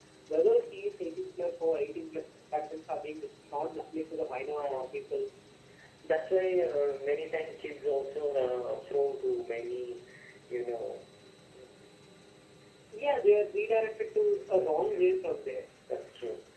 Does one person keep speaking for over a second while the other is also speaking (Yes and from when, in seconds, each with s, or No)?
No